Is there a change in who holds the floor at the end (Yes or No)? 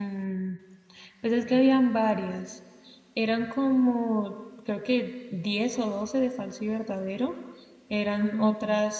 No